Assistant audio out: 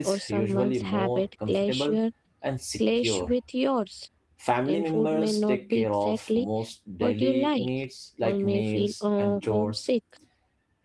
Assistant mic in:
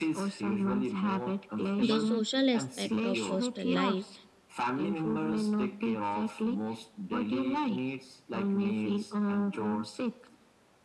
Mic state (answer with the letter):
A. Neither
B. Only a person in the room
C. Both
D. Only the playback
C